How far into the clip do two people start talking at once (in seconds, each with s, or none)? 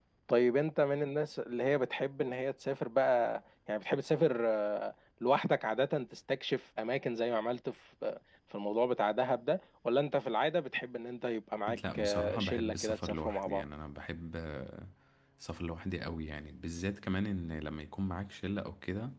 11.9 s